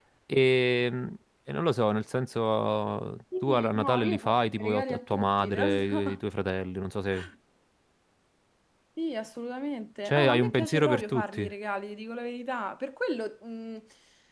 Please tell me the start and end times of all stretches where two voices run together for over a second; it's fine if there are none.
3.4-6.2, 10.0-11.4

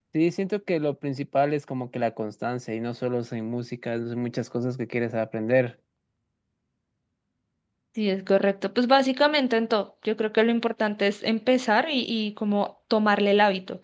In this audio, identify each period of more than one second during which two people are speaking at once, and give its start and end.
none

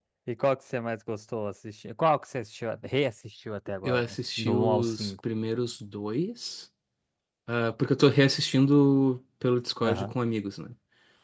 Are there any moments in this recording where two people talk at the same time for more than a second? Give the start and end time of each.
3.8-5.1

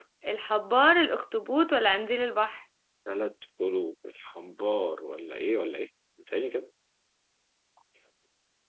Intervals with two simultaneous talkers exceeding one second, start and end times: none

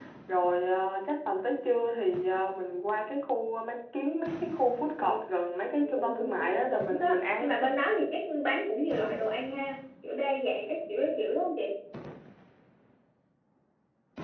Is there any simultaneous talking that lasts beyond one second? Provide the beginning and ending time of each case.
6.0-7.5

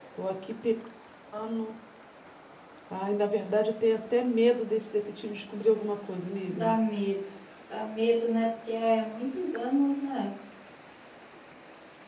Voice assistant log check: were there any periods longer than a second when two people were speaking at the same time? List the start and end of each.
none

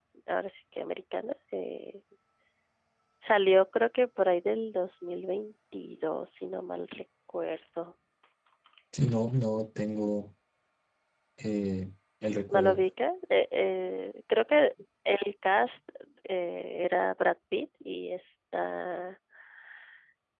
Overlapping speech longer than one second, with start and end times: none

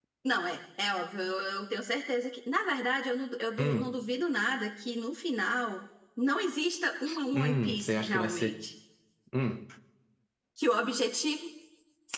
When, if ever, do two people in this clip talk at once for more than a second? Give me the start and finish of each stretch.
7.3-8.6

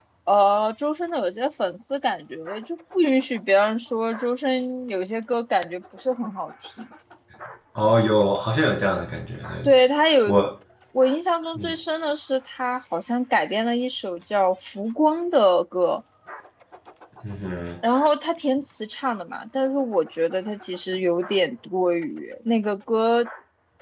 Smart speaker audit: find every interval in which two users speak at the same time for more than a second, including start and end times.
none

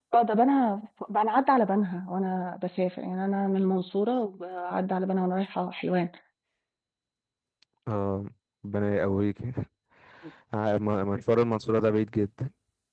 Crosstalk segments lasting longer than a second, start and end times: none

